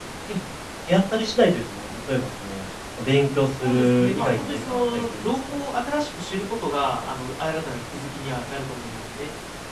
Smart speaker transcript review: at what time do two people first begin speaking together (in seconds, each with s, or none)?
3.6 s